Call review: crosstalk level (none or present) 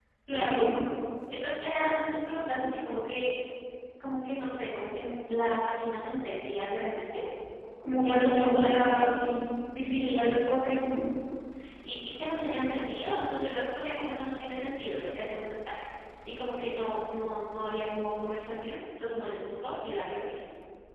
present